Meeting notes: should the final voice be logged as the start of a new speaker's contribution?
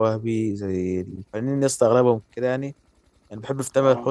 No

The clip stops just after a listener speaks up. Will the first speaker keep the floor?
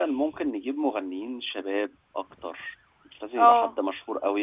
Yes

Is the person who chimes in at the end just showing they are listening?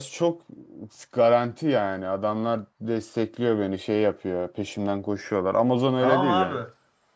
No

